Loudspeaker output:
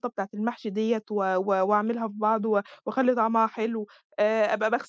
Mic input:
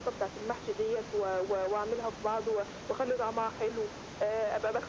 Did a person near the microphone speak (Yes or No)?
No